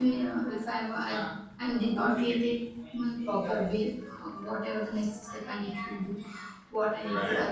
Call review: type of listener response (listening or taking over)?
listening